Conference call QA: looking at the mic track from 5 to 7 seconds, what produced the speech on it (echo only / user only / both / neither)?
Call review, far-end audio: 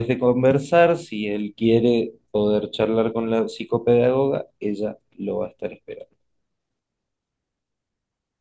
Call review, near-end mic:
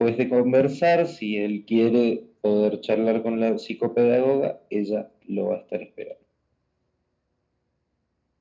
echo only